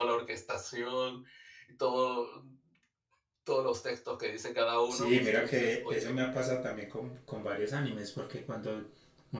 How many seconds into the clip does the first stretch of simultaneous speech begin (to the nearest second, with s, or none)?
5 s